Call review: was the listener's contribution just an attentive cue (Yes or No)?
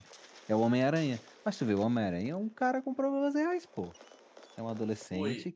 Yes